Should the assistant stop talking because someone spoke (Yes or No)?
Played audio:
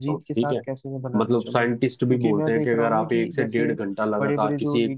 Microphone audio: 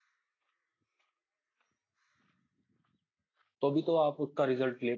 Yes